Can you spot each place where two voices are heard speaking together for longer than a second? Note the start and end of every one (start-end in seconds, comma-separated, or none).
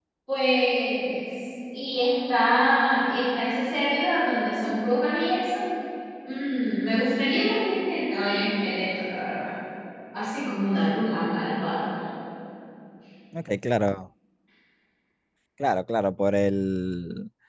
none